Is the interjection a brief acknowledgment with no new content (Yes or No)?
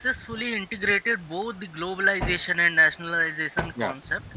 Yes